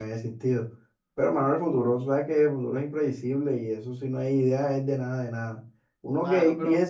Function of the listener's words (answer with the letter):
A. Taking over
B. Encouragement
B